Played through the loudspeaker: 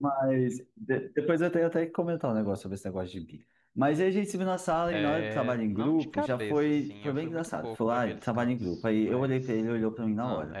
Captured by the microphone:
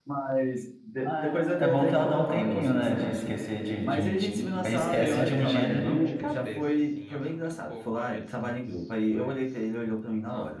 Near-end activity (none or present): present